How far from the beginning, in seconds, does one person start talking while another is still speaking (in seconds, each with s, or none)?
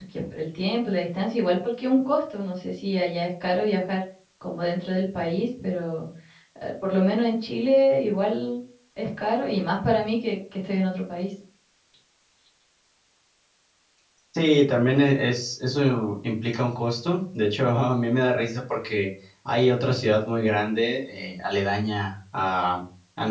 none